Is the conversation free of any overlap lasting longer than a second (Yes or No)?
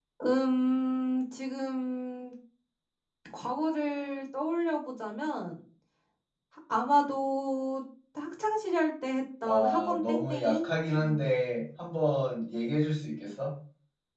No